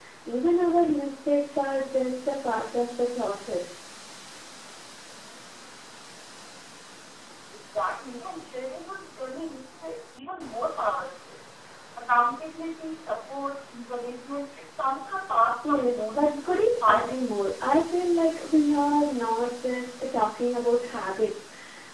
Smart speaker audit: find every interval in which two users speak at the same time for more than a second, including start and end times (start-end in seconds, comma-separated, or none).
15.7-17.2